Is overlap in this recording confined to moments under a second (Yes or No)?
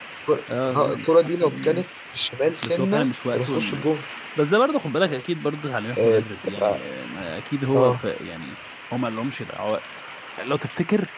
No